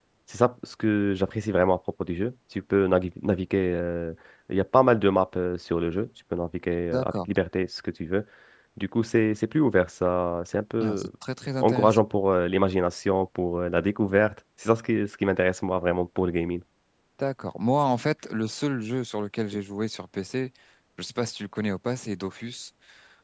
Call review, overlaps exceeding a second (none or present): none